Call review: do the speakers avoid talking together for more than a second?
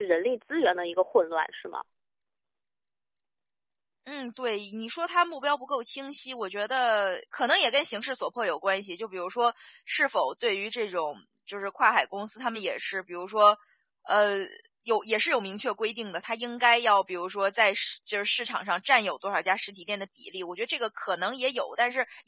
Yes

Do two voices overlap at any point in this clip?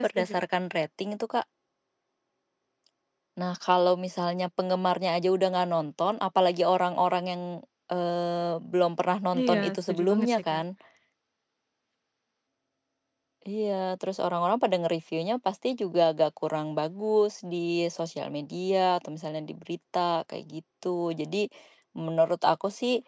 Yes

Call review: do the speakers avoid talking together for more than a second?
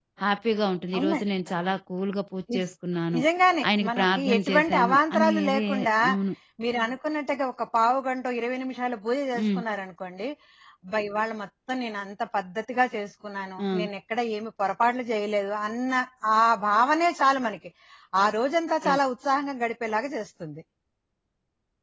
No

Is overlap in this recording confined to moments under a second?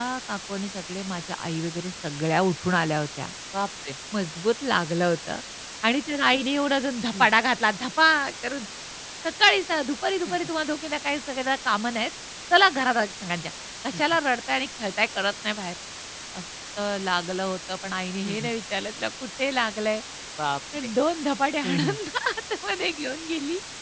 Yes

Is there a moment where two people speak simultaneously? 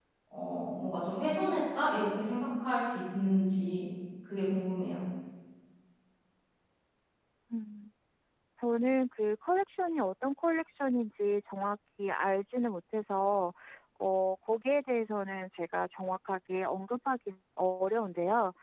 No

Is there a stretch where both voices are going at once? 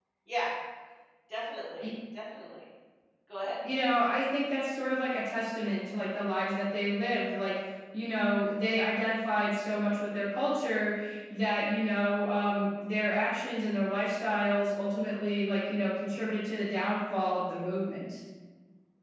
No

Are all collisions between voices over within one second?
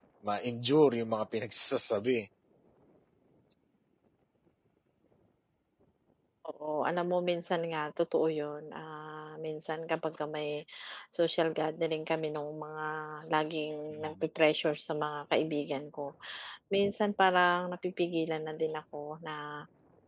Yes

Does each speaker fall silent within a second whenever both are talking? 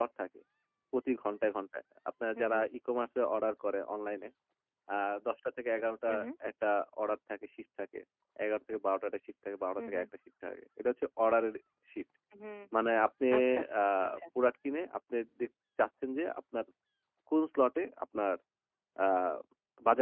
Yes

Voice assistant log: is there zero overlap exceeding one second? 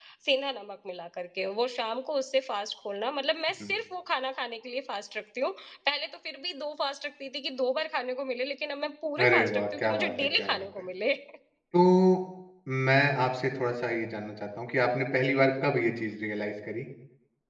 No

